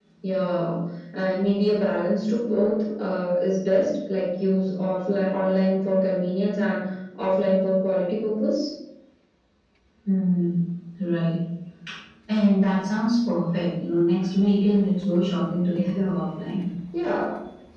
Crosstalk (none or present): none